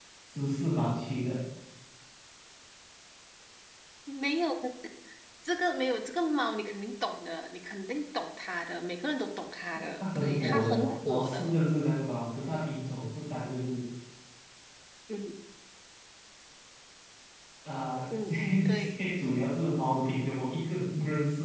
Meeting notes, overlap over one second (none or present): present